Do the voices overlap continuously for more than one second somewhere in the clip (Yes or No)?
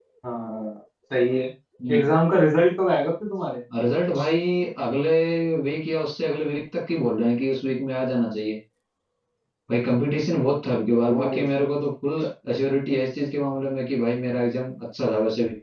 No